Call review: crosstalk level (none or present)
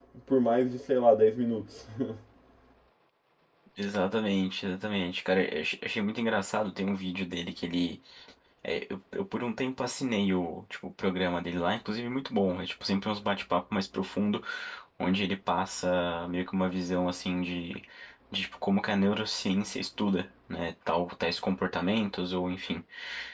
none